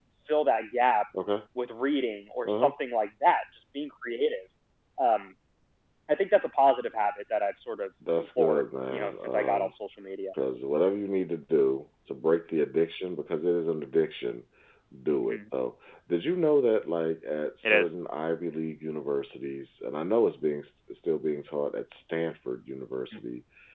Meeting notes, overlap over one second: present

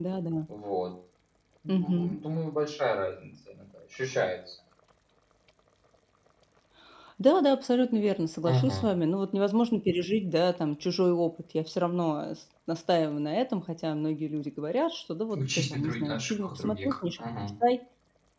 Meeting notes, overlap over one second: present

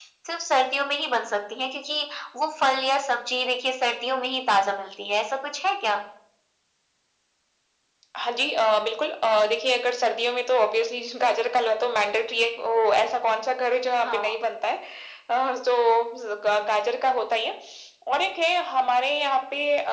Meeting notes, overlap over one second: none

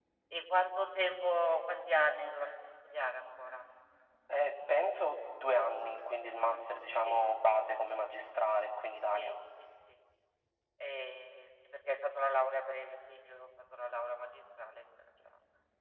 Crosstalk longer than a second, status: none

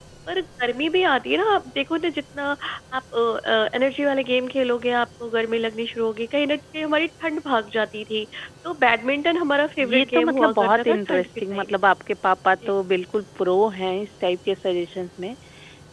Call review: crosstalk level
present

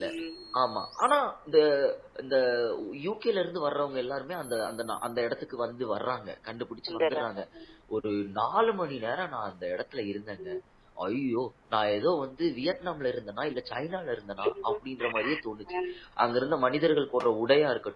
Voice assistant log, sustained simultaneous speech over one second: none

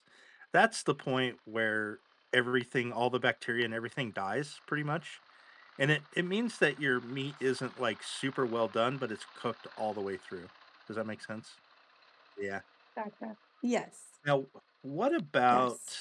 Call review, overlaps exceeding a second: none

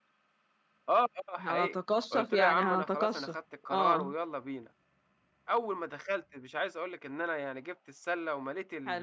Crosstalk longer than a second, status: present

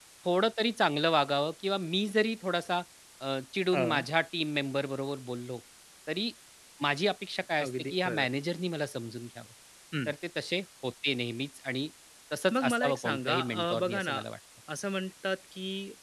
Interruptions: present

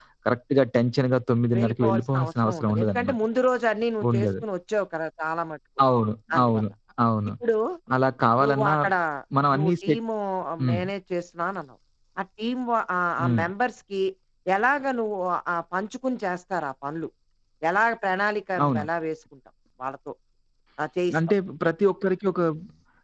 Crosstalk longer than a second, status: present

